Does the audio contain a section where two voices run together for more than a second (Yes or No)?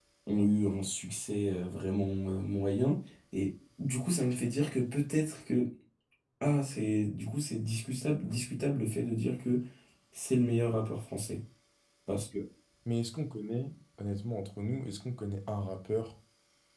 No